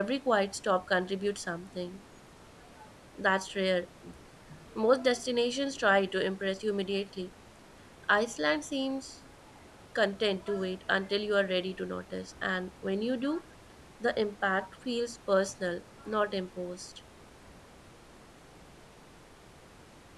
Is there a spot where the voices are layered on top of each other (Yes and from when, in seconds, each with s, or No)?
No